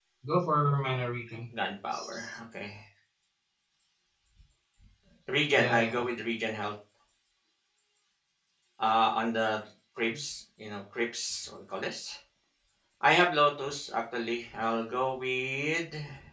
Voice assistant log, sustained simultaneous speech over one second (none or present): none